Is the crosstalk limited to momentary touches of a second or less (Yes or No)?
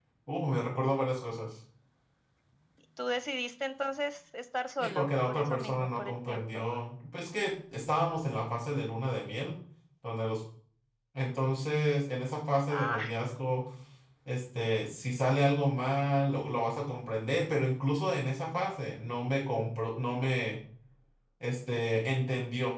No